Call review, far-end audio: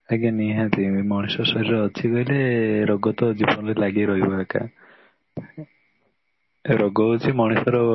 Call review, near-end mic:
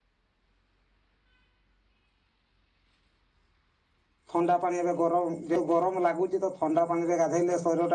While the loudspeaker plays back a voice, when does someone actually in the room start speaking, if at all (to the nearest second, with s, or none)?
4 s